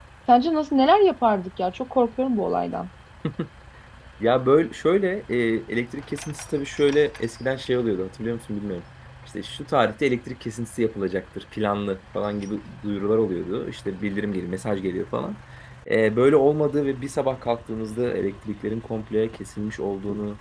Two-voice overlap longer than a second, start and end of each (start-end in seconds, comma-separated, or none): none